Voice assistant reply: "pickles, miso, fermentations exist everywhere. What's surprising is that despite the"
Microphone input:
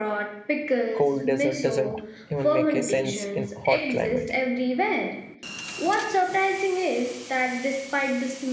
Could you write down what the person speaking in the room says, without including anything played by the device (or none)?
Cold dessert doesn't even make a sense in hot climate.